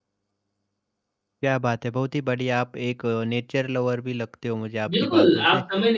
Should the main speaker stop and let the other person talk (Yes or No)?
Yes